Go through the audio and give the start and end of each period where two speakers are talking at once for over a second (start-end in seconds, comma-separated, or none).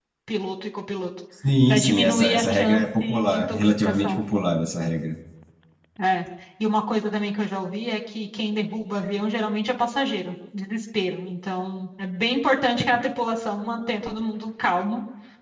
1.7-4.2